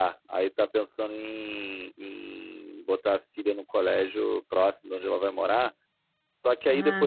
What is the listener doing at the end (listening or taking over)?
listening